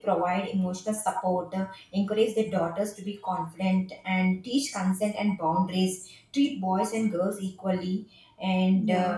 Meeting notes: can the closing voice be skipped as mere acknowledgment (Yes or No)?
Yes